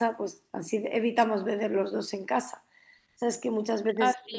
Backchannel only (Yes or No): Yes